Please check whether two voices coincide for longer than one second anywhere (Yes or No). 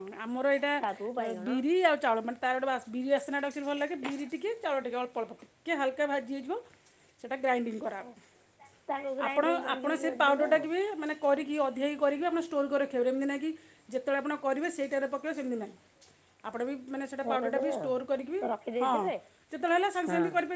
Yes